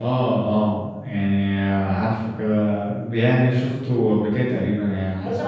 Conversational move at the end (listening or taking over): taking over